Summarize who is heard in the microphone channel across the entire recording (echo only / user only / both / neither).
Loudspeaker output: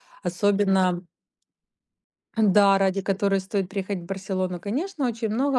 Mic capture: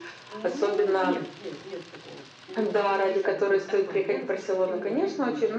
both